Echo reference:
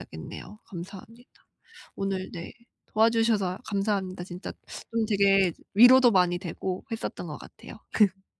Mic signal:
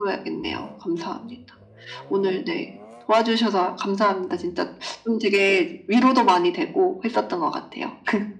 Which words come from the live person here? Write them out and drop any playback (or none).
none